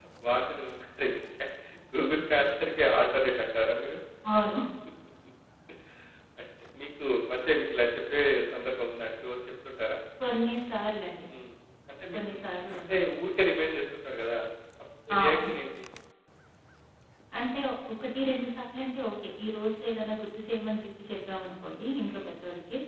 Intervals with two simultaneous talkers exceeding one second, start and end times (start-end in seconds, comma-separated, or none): none